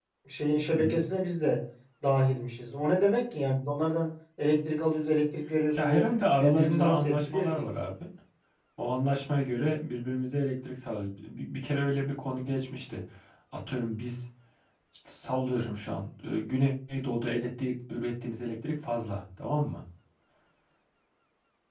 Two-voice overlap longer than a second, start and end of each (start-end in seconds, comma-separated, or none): 5.8-7.7